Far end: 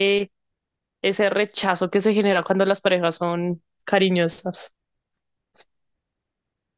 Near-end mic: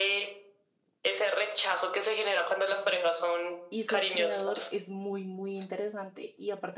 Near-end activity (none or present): present